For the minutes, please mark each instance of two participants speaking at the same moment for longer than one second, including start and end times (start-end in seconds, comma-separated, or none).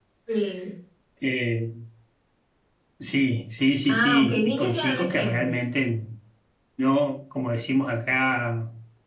3.9-5.6